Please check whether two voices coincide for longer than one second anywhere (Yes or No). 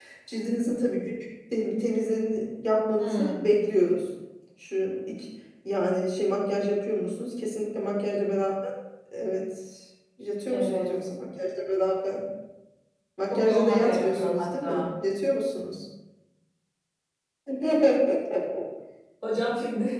Yes